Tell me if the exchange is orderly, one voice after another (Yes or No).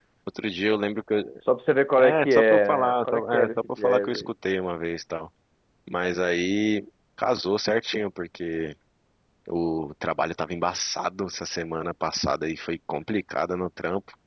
No